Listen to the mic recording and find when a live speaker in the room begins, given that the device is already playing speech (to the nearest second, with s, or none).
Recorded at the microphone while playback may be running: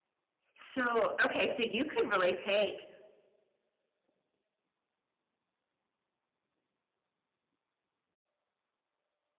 1 s